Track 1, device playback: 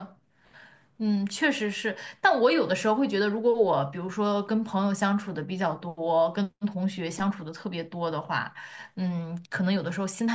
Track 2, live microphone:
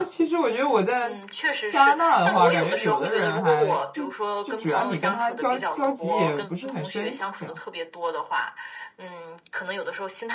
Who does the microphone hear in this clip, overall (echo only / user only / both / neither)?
both